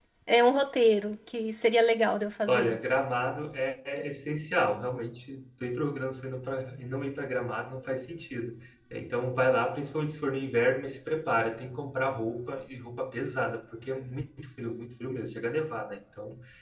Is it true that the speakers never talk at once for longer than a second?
Yes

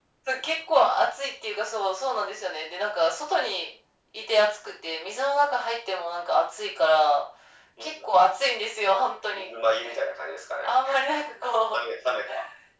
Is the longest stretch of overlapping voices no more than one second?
Yes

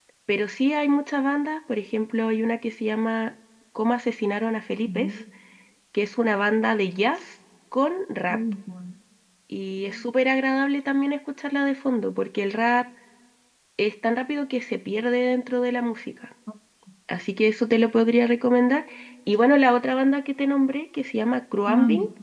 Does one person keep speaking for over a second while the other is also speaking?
No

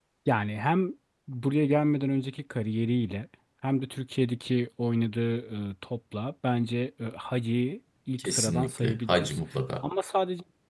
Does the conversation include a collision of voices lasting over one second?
Yes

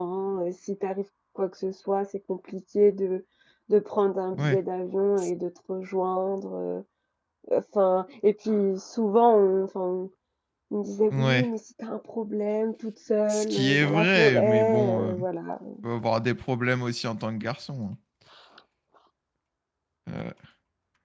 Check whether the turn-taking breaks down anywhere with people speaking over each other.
Yes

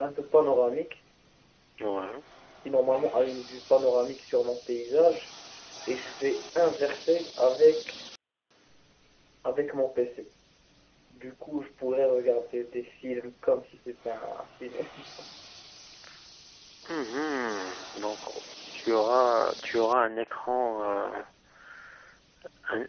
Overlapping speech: No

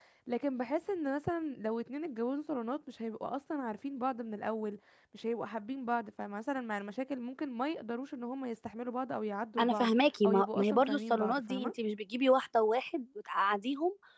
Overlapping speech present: Yes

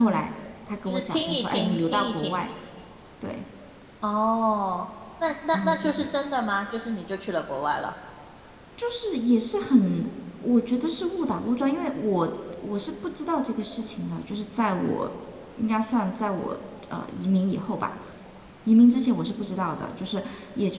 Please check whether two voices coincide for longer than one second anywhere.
Yes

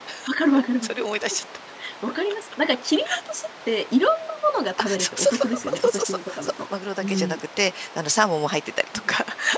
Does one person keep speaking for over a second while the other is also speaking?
Yes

